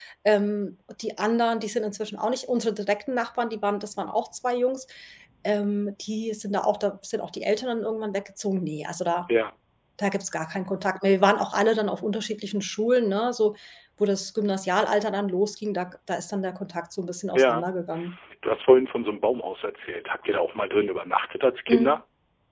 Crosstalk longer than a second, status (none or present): none